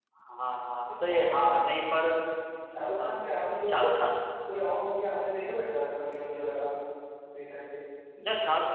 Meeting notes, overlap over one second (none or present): none